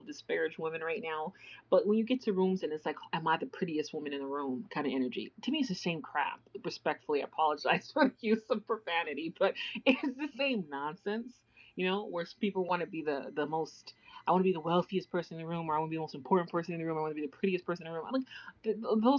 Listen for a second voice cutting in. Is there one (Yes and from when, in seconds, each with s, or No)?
No